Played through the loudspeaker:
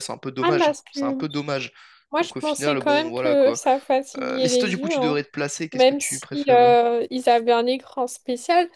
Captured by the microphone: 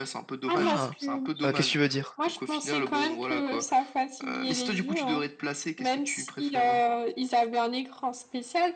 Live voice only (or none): Ah, euh, qu'est-ce que tu veux dire?